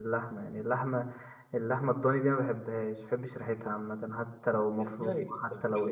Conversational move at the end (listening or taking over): taking over